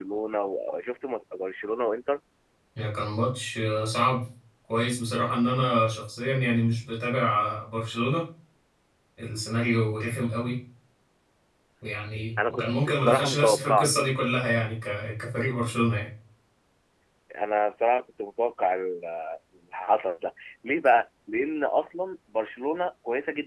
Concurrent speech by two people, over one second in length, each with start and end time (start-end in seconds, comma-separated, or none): 12.5-13.9